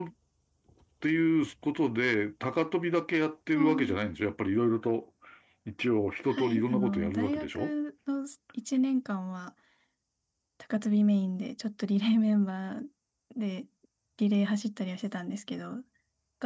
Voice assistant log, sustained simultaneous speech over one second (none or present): present